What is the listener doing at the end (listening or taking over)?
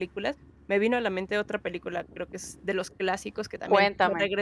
listening